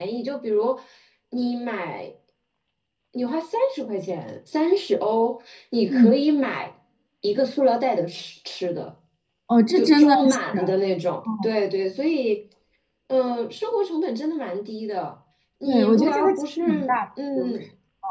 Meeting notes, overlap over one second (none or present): present